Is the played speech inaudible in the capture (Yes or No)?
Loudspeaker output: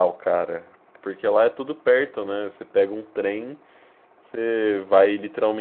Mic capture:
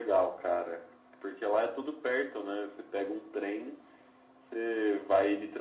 No